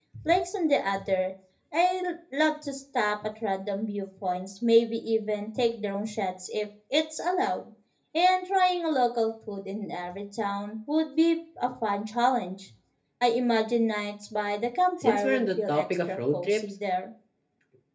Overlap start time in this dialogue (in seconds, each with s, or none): 15.0 s